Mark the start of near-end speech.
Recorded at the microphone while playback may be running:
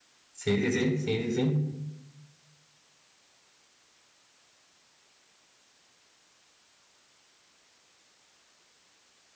0.3 s

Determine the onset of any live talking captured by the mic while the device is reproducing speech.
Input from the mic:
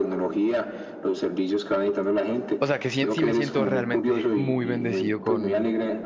2.6 s

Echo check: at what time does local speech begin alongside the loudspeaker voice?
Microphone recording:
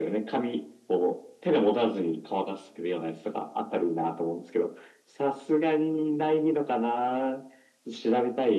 none

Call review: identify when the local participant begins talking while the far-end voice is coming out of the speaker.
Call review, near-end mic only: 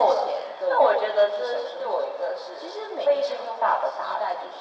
none

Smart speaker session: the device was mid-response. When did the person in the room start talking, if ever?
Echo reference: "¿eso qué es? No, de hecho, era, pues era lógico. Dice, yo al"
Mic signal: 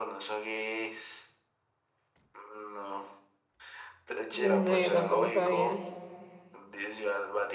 4.3 s

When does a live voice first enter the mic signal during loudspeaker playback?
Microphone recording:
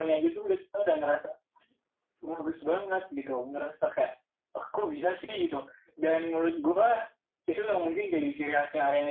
none

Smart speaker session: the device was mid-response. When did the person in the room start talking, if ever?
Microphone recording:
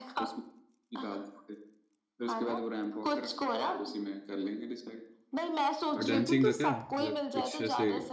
6.0 s

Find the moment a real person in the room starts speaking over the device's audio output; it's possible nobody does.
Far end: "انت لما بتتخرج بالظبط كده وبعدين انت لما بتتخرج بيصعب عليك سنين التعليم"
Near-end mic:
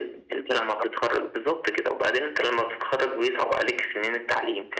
none

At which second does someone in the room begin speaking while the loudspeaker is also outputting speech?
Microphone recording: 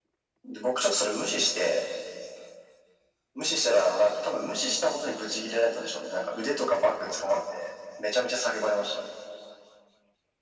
none

